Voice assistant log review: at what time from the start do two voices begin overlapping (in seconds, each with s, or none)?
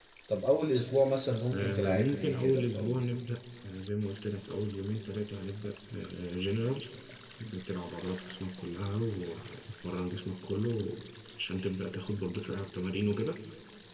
1.5 s